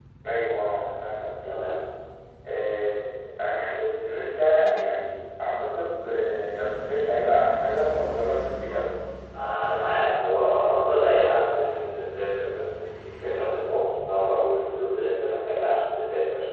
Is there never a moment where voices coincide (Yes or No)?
Yes